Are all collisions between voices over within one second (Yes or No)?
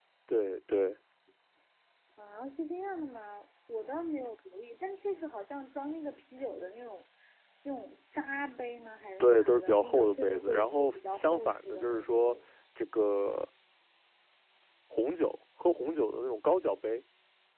No